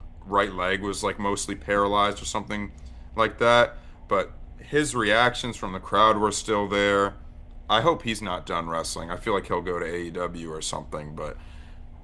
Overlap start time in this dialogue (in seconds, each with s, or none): none